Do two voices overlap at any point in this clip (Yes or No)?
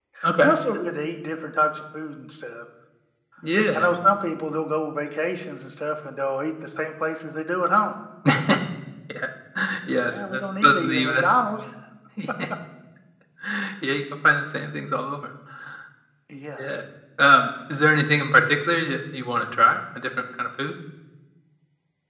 Yes